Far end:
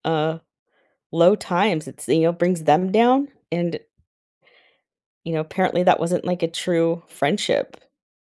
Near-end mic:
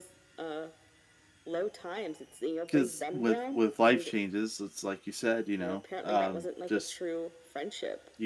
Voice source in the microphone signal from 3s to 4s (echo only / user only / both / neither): both